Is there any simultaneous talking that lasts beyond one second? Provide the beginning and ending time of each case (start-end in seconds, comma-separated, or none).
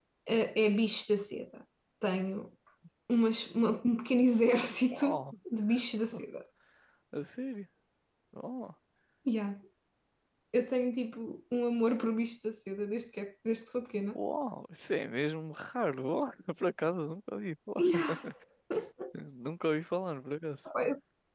none